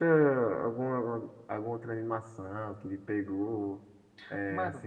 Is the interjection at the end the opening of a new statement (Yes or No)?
No